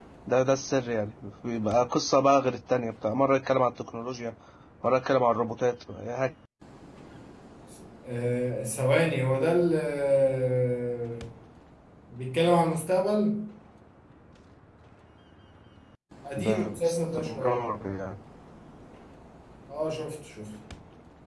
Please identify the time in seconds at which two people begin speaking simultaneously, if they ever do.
16.4 s

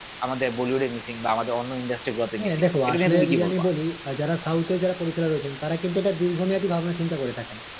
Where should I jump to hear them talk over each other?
2.4 s

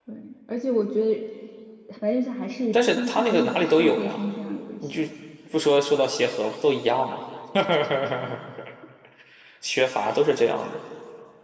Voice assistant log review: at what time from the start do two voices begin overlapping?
2.7 s

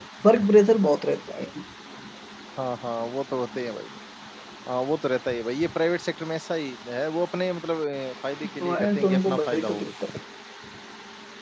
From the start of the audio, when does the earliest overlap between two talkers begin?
8.6 s

